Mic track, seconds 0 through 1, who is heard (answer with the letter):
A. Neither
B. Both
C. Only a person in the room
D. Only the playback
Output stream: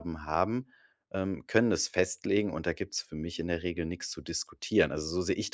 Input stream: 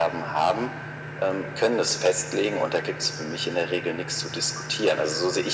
D